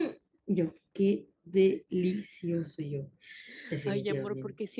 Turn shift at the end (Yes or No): Yes